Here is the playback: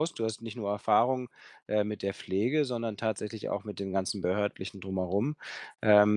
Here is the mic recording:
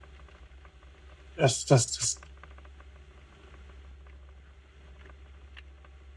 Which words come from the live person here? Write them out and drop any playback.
das das das

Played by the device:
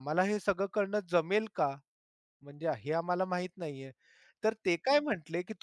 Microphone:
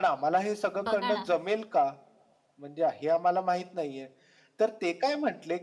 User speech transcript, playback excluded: बघा ना

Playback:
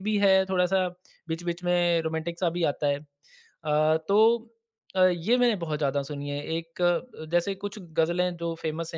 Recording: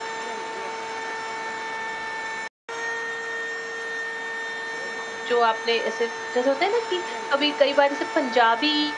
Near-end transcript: जो आपने ऐसे जैसे होता है ना कि कभी कई बार ऐसे पंजाबी

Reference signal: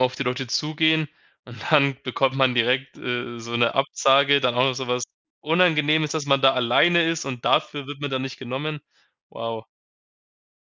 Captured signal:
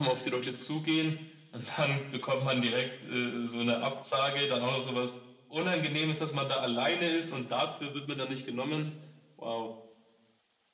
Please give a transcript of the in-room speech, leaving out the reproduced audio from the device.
none

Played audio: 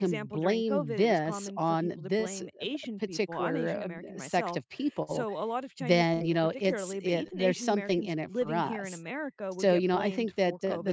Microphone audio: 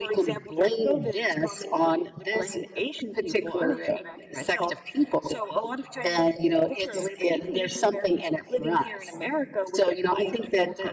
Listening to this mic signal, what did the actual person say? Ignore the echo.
none

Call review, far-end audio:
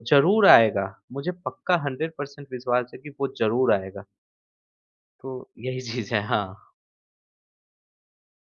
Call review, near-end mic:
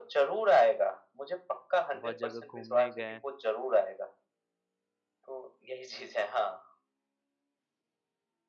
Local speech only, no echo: बहुत जगह घूमने गए,

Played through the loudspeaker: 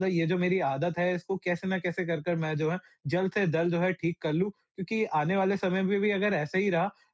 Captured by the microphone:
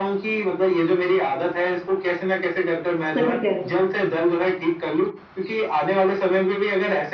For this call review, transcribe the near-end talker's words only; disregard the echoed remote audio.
सही कह रहे हैं।

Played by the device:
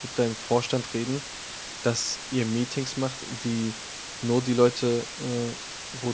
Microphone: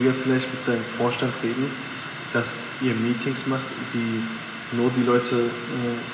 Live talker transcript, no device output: none

